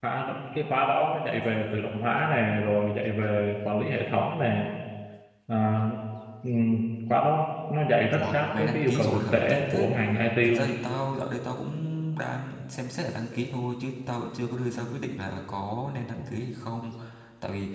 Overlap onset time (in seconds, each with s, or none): 8.1 s